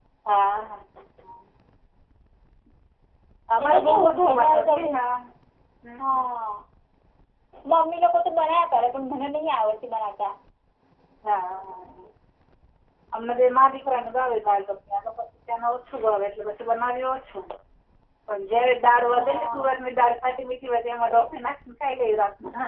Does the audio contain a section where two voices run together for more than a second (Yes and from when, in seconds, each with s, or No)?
Yes, from 3.6 s